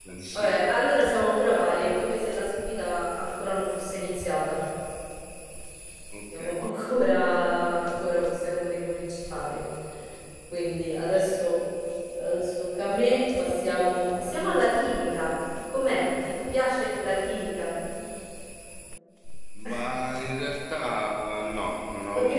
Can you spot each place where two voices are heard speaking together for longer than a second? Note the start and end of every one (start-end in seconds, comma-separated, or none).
none